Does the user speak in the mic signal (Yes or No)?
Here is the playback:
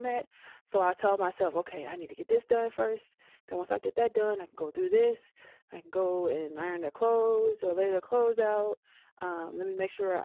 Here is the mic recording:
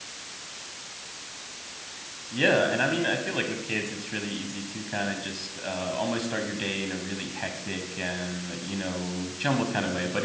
Yes